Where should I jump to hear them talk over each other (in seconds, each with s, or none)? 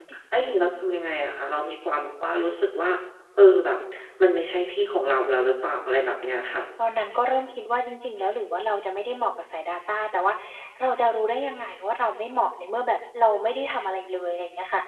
none